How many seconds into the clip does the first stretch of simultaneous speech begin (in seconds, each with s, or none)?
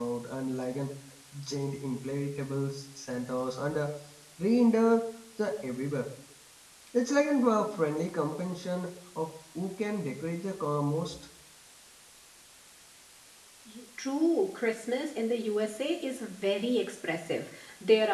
none